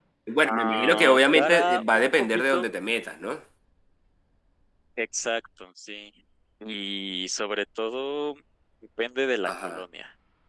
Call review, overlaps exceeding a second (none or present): present